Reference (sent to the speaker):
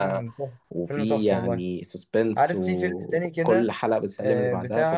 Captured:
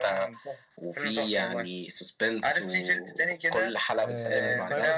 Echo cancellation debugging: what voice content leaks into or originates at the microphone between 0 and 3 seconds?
echo only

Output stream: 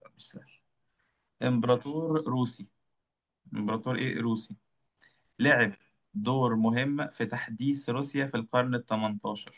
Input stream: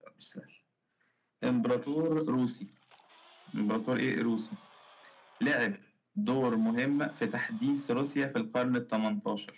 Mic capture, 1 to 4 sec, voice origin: echo only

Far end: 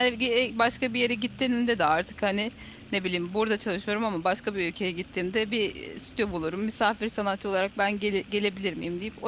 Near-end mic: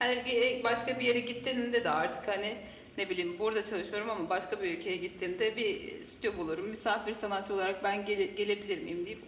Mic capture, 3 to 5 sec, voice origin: echo only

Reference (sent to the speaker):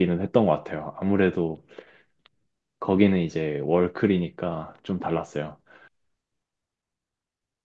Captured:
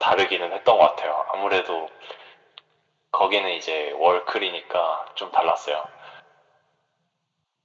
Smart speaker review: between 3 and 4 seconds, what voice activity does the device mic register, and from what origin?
echo only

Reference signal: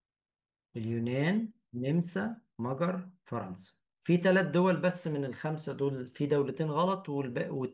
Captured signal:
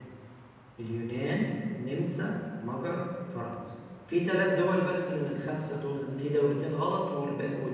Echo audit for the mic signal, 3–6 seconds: echo only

